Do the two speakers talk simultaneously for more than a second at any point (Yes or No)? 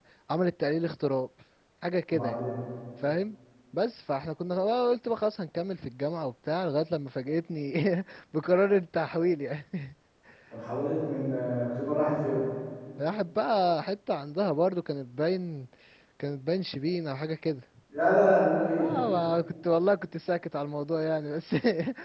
No